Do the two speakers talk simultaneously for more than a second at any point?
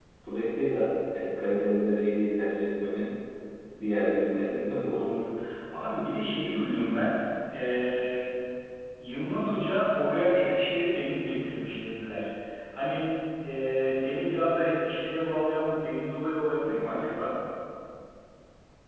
No

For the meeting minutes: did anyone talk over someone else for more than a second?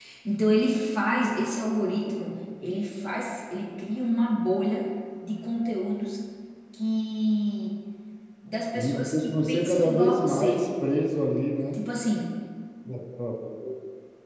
Yes, from 8.8 s

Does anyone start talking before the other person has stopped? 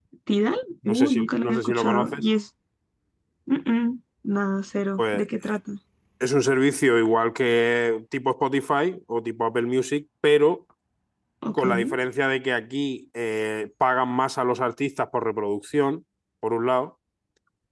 Yes, from 0.9 s

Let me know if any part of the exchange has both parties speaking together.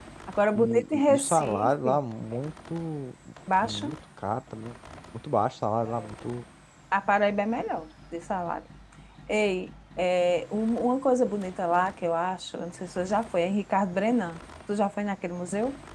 Yes, from 0.5 s

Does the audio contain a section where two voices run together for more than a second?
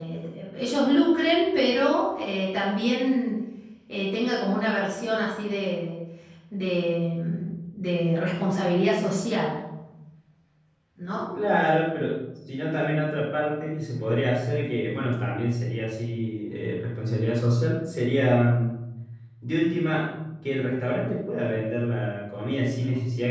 No

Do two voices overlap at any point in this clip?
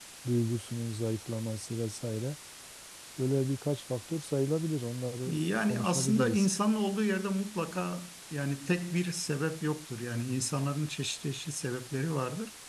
Yes, from 5.3 s

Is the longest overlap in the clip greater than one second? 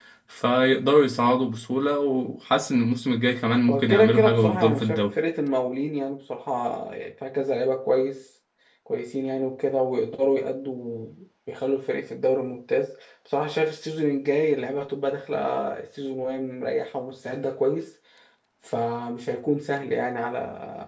Yes, from 3.7 s

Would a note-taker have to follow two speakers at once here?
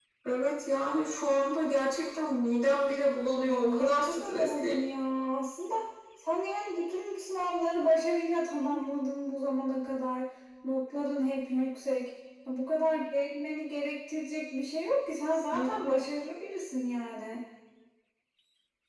Yes, from 3.4 s

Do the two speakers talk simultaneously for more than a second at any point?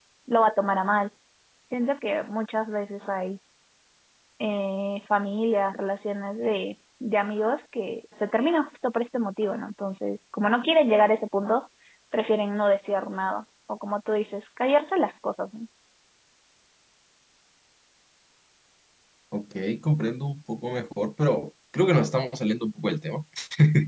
No

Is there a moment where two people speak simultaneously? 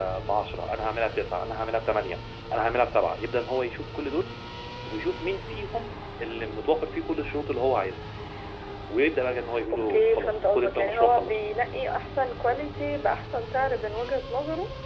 Yes, from 9.7 s

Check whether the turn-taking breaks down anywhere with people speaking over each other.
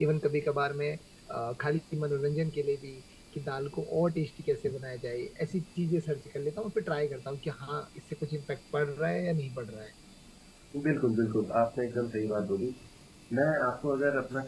No

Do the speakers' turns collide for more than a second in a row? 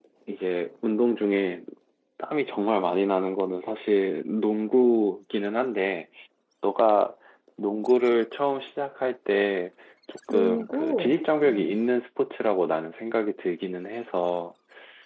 Yes, from 10.3 s

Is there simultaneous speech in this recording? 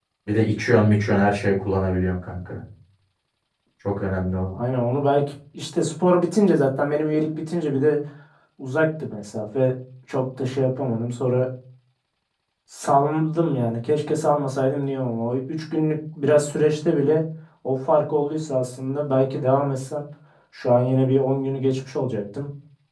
No

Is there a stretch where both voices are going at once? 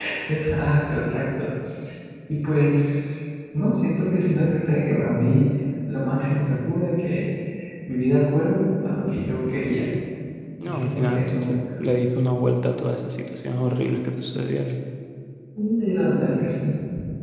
Yes, from 10.7 s

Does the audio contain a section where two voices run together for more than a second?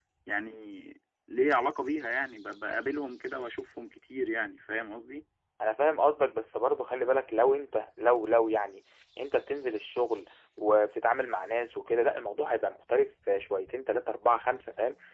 No

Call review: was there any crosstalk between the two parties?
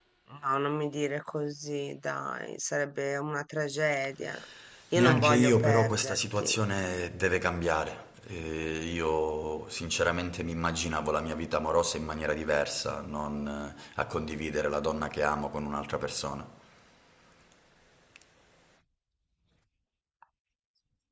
Yes, from 4.9 s

